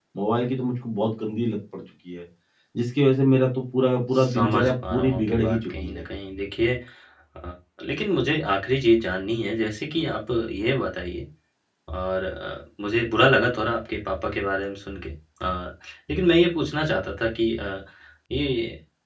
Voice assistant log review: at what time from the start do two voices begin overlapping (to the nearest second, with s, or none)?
4 s